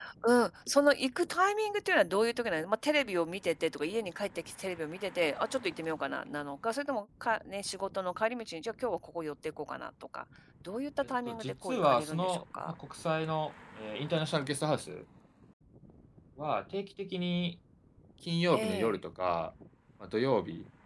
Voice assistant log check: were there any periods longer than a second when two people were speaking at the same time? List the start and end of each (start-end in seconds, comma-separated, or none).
11.3-12.7